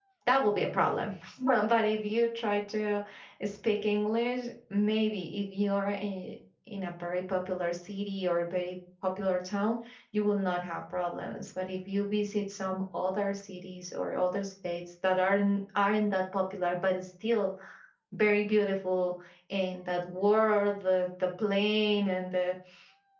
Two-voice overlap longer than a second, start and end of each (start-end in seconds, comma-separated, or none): none